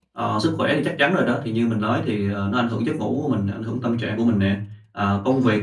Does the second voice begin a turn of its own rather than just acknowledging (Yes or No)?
No